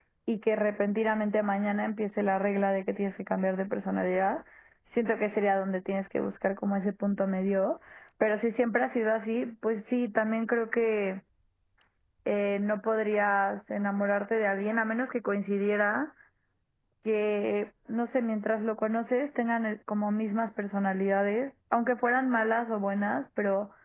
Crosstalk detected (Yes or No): No